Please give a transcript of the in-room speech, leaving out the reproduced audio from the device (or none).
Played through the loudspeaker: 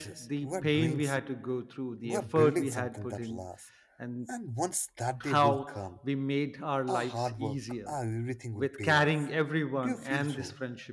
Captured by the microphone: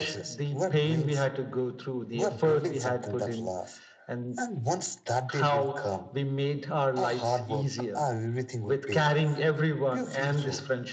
none